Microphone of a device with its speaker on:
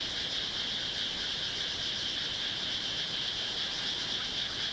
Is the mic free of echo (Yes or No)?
Yes